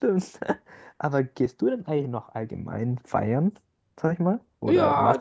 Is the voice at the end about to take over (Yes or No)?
Yes